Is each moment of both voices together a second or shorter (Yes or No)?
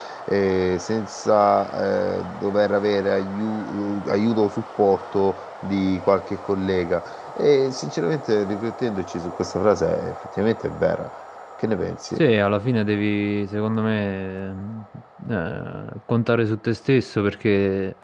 Yes